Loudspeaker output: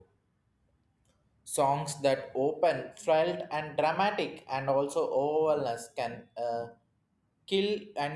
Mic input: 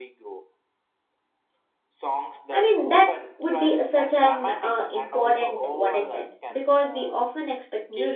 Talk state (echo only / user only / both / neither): both